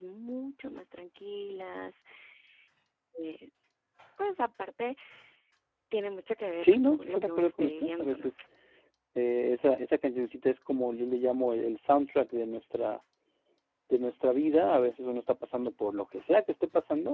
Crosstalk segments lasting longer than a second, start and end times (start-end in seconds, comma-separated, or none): 6.6-8.3